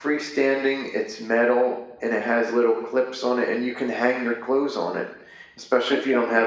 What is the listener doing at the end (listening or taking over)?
listening